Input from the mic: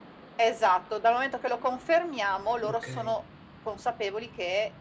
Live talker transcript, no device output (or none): Okay.